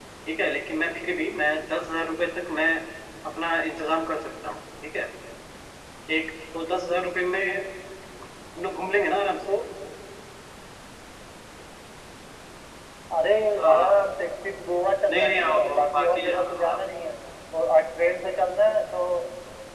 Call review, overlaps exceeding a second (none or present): present